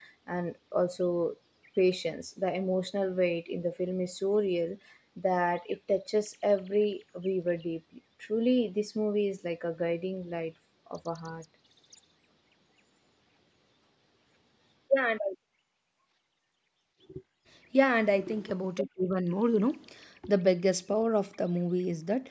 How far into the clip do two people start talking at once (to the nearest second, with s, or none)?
none